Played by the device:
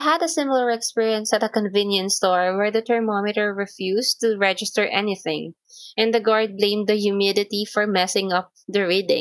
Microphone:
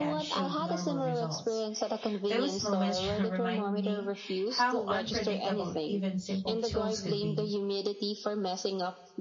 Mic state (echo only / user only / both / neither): both